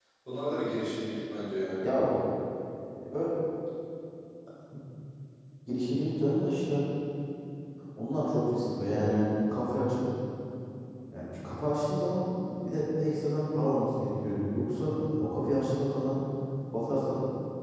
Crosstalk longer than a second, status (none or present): none